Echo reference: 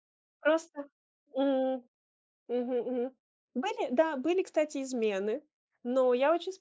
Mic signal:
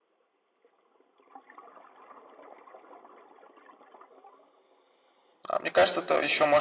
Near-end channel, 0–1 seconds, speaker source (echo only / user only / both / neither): neither